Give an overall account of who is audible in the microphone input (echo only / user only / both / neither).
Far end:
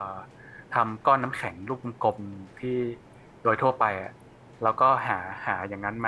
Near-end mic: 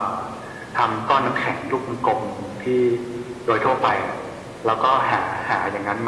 echo only